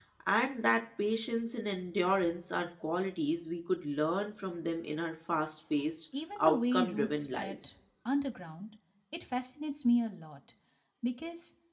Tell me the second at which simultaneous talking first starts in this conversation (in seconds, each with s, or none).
6.4 s